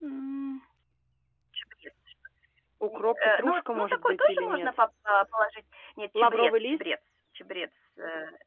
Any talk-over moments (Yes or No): Yes